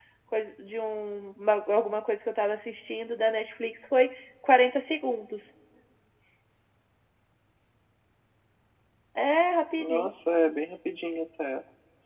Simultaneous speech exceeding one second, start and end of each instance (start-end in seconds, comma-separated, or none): none